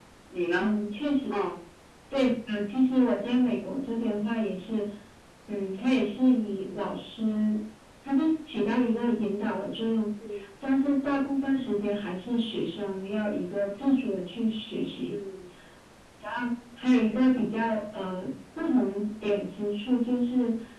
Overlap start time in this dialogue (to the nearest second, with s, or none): none